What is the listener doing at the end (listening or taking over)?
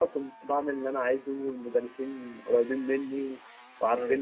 listening